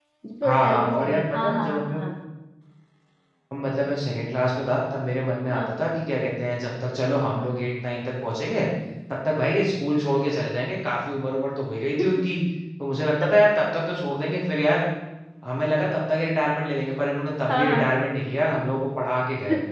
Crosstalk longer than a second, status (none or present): present